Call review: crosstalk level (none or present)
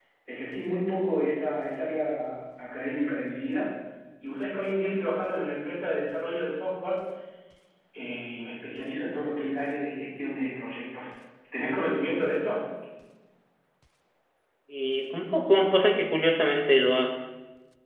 none